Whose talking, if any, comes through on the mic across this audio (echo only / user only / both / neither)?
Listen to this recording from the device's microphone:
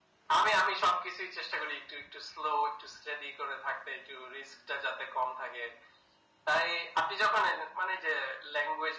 echo only